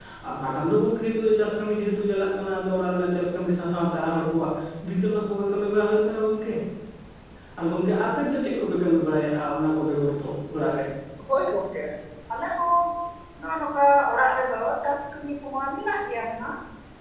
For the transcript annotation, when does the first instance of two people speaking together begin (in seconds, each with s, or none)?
none